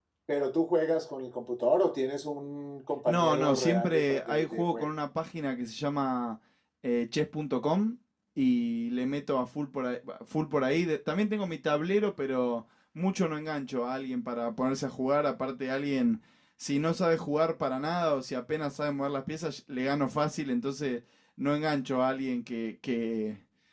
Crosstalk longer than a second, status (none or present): present